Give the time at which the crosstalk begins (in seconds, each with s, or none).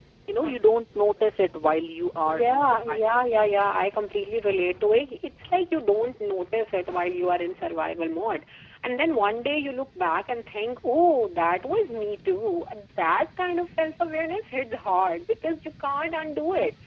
2.2 s